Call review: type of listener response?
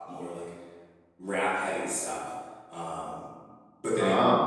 listening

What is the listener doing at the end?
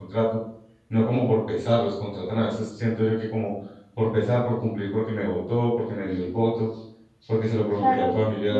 taking over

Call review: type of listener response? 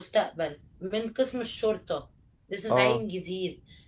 listening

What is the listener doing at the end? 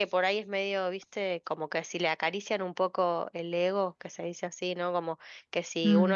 listening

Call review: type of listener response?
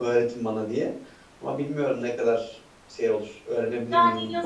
taking over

